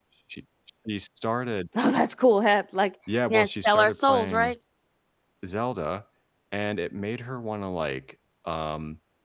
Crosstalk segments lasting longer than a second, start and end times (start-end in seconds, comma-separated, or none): 3.3-4.5